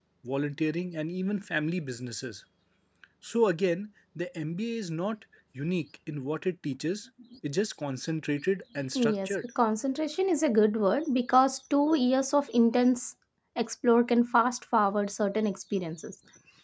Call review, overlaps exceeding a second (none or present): none